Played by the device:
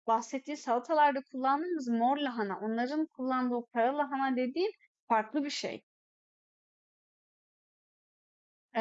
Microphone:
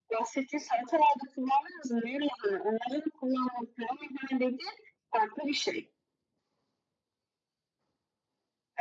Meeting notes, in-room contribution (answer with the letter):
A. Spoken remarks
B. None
B